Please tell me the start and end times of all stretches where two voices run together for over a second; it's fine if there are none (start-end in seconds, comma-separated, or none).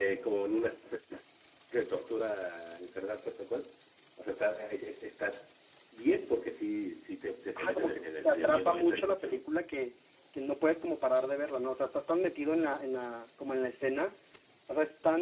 7.6-9.4